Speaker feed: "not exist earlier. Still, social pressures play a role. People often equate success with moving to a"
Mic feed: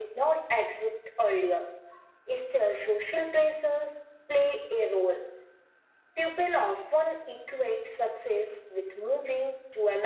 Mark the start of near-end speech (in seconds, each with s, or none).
none